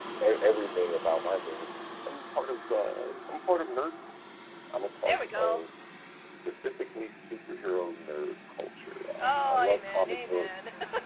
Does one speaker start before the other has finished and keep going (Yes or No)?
Yes